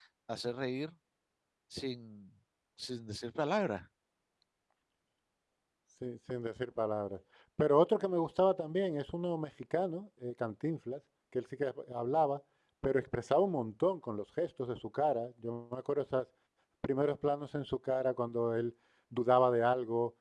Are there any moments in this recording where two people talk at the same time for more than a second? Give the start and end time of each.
none

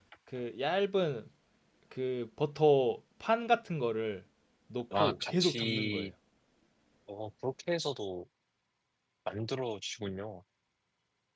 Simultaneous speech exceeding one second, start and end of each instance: 4.9-6.1

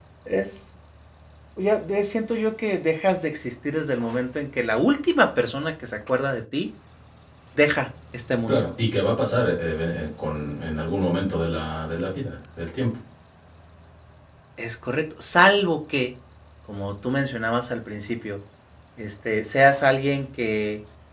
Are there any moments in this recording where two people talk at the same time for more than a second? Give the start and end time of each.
none

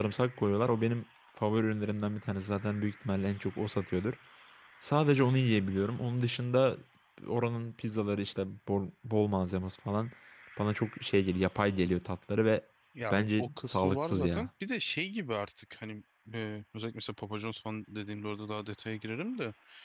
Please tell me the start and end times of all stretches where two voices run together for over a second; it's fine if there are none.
13.1-14.5

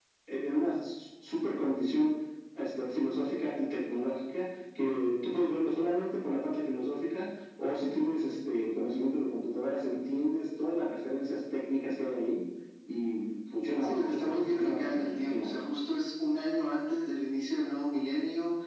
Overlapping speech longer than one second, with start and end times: 13.8-15.5

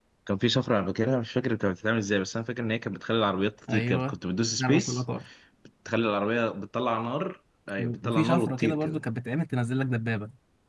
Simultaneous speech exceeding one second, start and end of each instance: 7.8-9.0

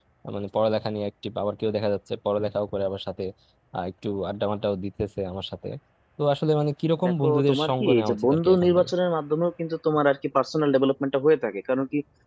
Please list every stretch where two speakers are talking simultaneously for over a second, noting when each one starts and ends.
7.0-8.8

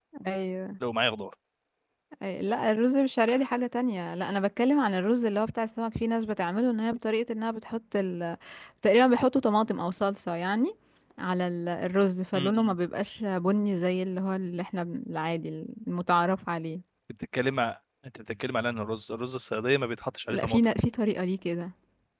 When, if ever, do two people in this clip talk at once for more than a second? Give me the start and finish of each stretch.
none

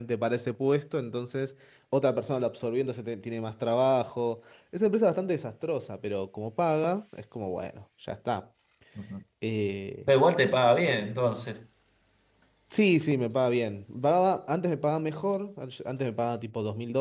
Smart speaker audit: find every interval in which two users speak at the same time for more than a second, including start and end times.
none

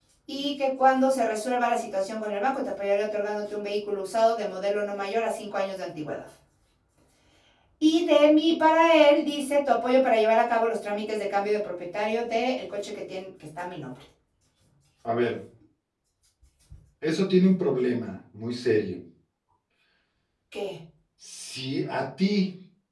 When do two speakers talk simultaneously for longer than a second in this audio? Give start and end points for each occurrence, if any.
none

